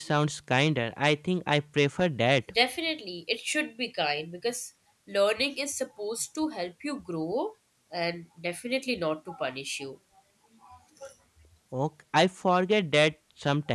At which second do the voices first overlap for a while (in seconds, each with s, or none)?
none